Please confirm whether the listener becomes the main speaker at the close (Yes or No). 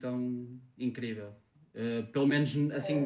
No